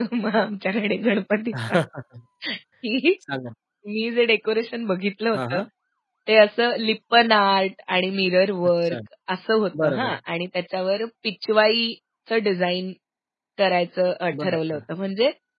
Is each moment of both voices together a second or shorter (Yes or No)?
Yes